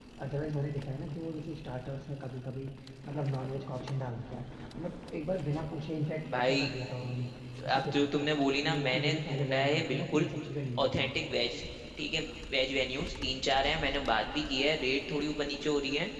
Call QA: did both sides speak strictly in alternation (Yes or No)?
No